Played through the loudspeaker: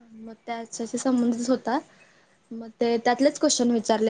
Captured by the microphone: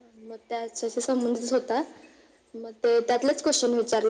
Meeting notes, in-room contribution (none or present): none